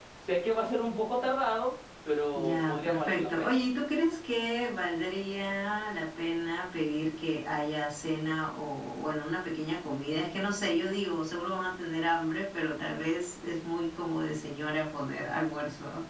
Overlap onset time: 2.3 s

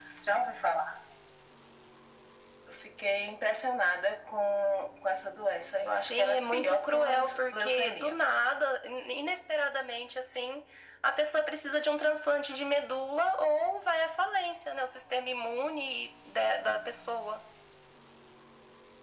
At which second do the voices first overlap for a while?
5.9 s

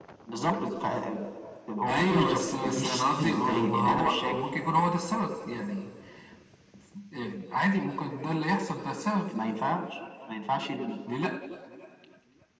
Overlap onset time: 1.9 s

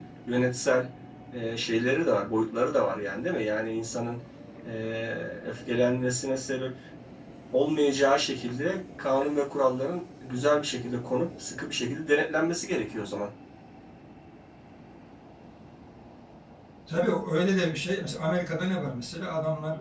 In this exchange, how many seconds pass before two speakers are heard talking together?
none

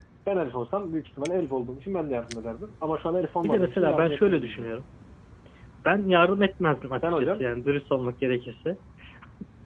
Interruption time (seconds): 3.4 s

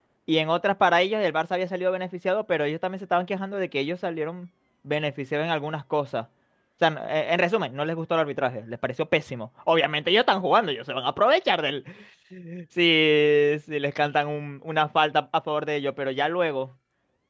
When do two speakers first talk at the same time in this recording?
none

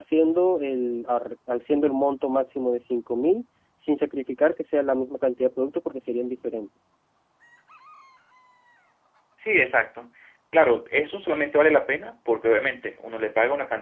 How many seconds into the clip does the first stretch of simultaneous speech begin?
none

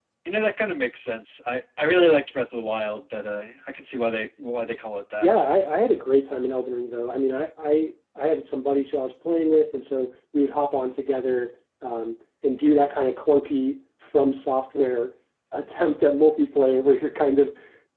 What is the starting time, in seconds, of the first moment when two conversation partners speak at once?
none

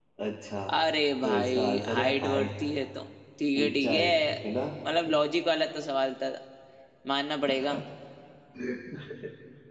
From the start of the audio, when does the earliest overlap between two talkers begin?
1.2 s

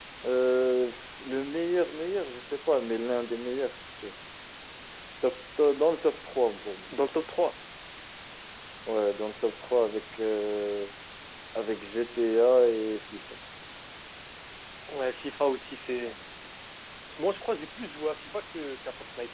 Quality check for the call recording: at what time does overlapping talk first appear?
none

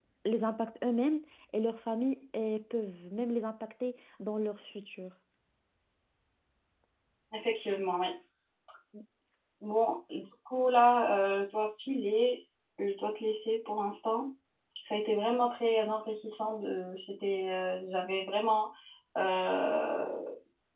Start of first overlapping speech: none

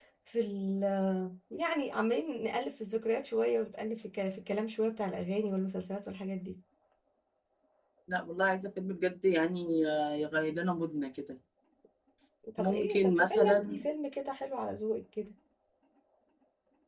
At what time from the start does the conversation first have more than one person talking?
12.6 s

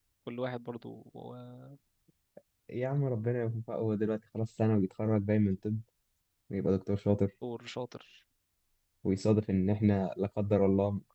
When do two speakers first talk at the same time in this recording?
none

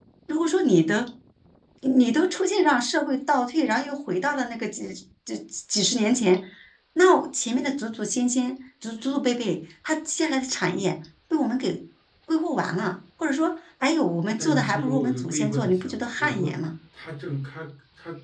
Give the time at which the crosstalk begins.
14.4 s

